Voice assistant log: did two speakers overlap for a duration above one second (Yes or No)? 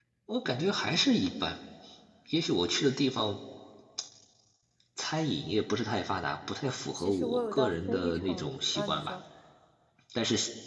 Yes